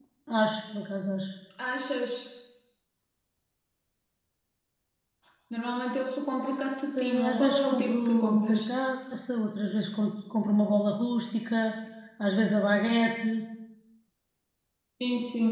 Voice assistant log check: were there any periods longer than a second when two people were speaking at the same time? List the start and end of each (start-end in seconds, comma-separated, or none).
7.0-8.6